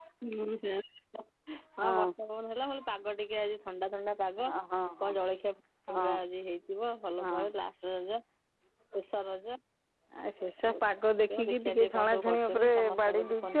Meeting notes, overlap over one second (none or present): present